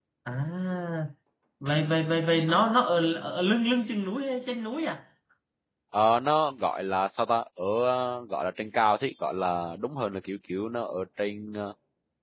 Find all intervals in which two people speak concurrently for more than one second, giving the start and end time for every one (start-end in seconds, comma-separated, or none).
none